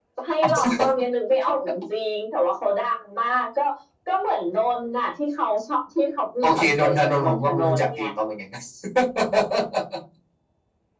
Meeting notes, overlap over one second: present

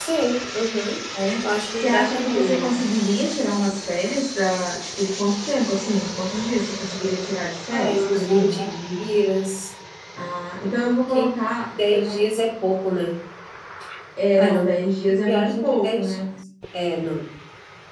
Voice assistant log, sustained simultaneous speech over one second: present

